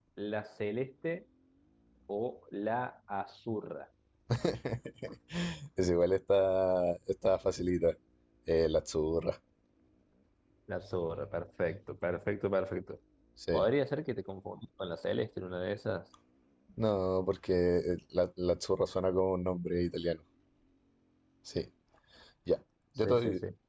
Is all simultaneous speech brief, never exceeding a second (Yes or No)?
Yes